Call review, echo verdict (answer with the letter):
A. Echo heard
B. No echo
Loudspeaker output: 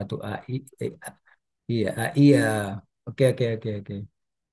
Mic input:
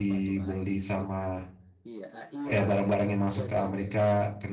A